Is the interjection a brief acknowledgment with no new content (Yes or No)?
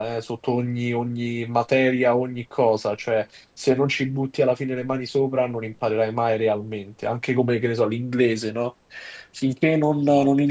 Yes